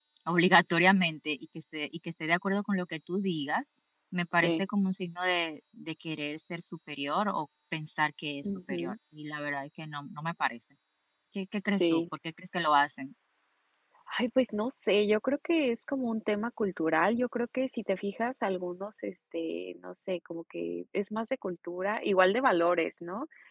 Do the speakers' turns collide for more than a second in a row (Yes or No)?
No